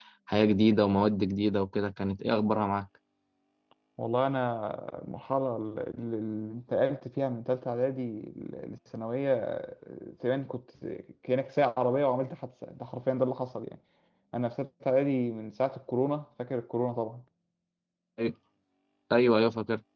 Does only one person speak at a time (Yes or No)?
Yes